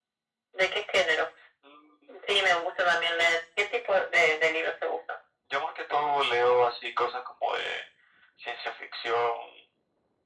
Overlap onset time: none

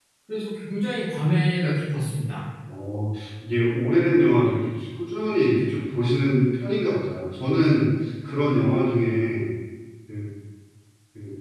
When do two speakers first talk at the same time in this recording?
none

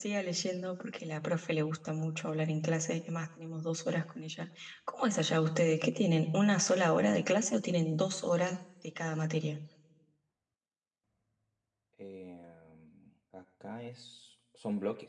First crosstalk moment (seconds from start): none

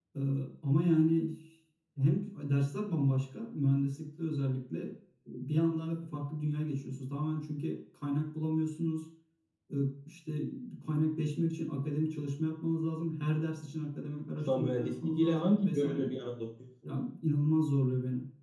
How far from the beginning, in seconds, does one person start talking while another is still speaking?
14.4 s

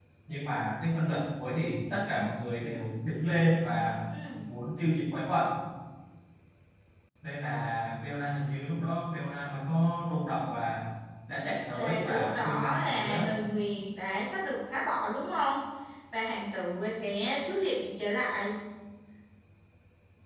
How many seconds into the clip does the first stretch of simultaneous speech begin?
11.8 s

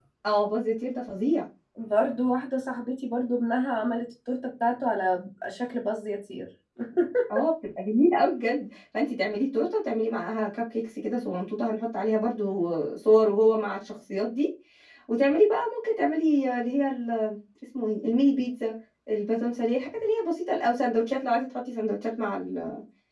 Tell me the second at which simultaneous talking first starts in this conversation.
none

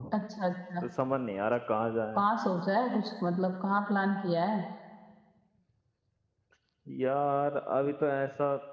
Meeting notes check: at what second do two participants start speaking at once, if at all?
none

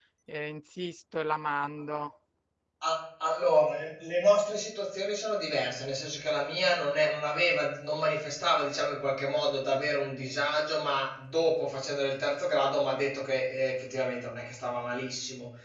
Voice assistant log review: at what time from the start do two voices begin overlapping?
none

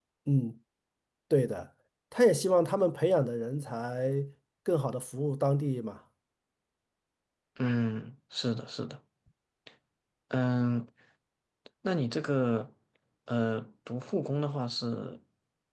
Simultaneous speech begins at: none

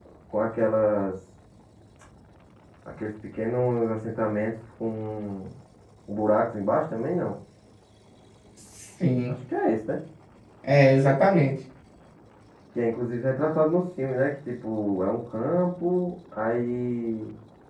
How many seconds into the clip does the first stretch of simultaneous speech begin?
none

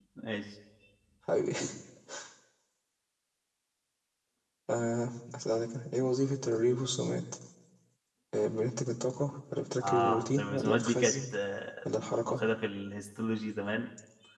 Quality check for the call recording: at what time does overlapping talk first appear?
9.8 s

